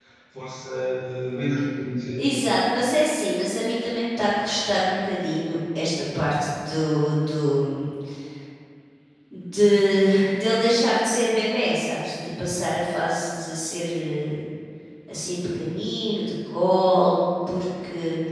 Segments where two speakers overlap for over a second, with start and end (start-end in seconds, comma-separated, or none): none